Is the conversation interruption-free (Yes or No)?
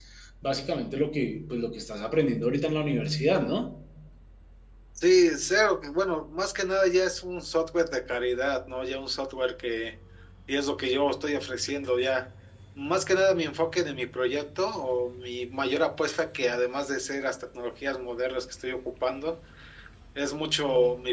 Yes